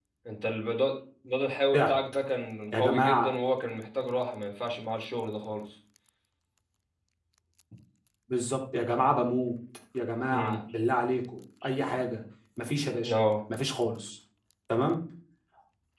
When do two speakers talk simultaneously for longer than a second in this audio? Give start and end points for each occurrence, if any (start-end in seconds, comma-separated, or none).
none